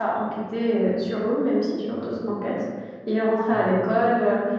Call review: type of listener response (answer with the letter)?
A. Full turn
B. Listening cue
B